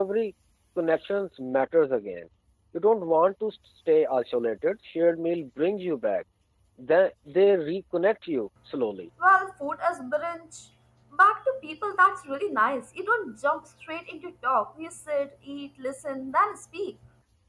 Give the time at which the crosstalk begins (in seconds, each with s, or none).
none